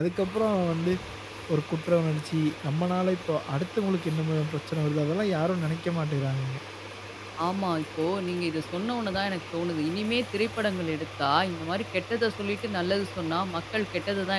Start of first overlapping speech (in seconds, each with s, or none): none